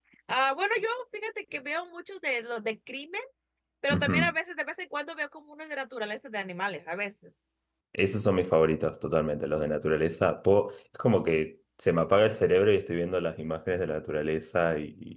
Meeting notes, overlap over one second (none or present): none